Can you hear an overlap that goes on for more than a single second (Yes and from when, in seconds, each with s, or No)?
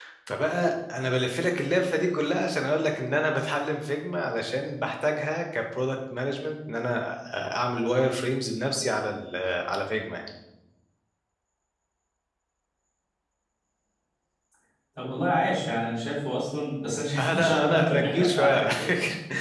Yes, from 17.2 s